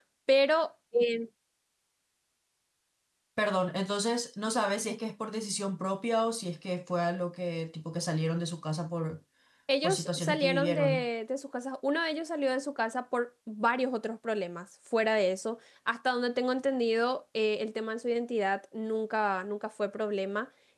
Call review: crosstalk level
present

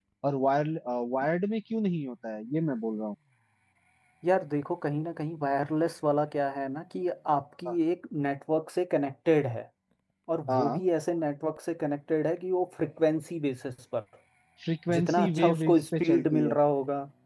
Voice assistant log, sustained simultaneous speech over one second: present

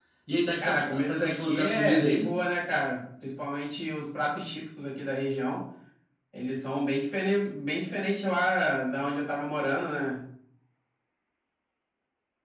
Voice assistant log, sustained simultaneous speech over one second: present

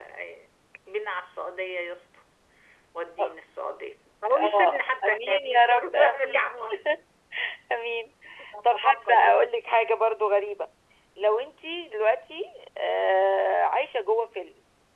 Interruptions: present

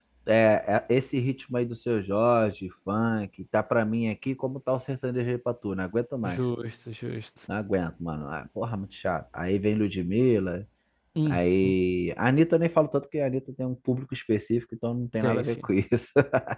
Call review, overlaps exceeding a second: none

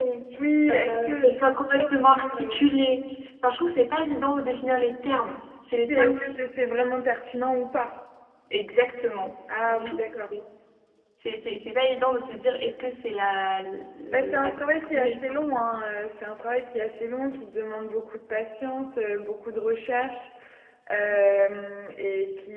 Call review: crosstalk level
present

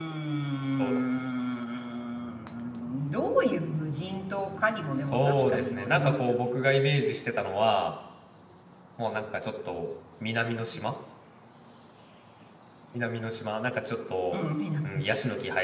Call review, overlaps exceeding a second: present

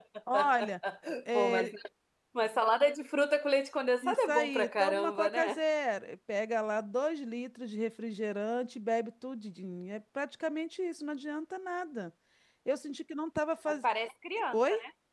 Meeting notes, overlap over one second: present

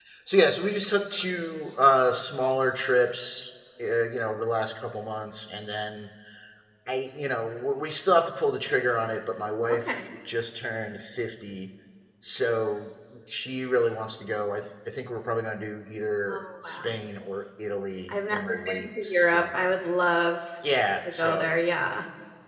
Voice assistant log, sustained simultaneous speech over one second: present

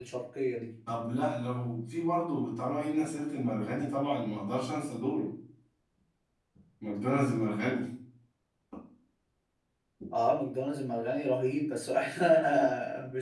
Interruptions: none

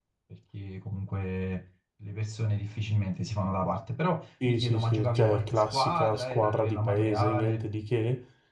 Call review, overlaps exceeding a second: present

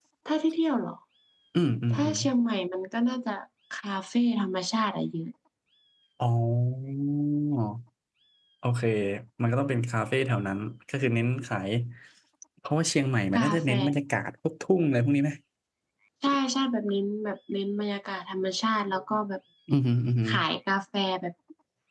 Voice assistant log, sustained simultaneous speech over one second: none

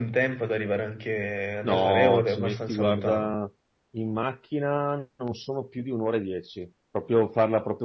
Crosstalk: present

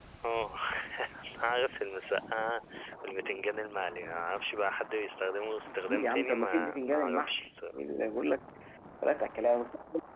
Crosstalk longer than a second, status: present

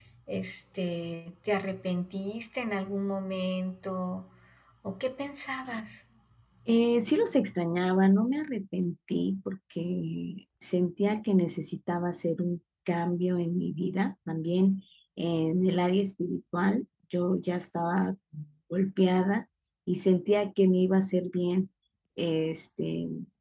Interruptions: none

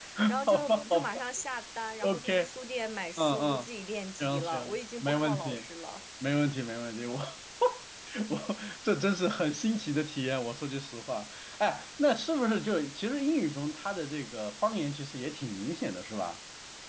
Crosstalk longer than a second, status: present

